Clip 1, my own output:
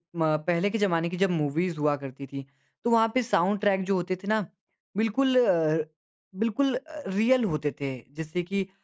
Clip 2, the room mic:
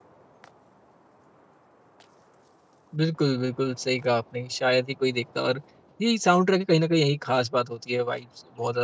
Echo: none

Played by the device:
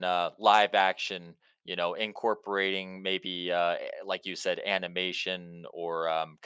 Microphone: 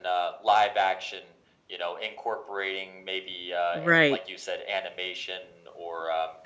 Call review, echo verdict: present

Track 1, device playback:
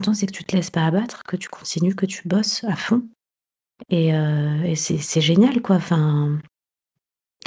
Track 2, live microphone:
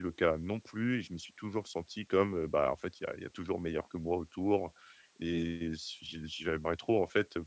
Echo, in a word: none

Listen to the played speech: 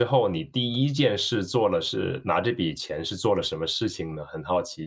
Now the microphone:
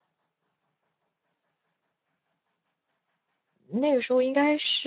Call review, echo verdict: none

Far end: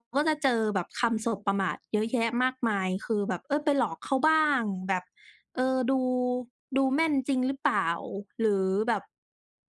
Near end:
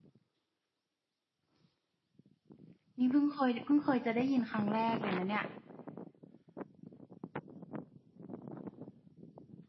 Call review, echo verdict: none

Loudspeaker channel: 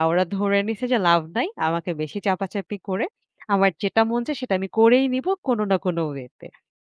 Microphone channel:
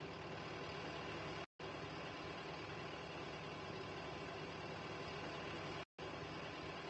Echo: none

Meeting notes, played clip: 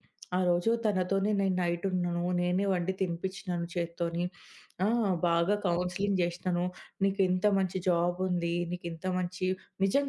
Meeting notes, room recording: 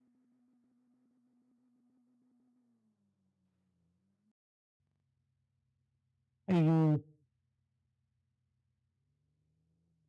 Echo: none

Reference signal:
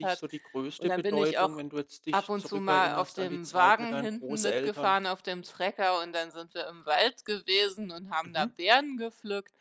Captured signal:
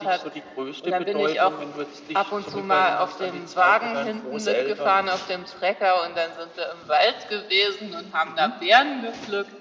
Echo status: present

